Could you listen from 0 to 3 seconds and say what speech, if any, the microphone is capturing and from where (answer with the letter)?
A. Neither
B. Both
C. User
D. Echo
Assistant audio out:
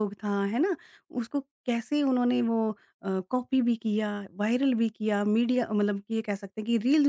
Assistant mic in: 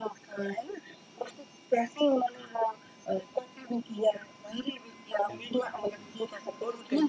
D